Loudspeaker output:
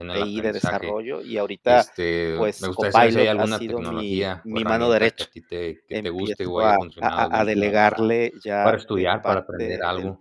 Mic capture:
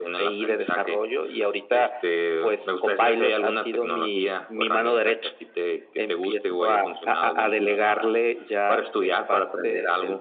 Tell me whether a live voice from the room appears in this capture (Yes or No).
No